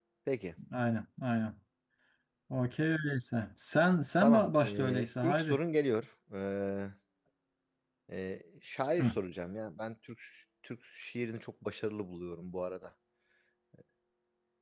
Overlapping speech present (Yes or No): Yes